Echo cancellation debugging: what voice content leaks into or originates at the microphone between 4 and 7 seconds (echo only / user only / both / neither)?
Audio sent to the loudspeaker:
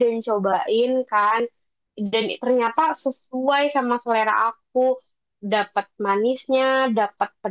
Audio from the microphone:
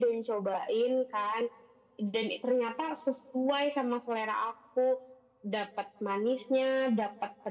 echo only